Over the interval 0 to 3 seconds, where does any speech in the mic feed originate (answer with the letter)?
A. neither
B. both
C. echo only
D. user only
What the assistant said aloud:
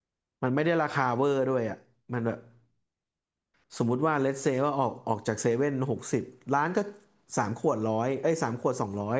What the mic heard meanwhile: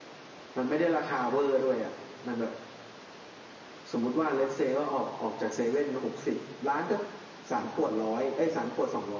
C